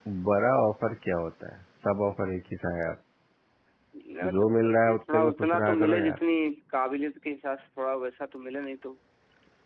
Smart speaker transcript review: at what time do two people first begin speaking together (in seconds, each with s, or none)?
4.3 s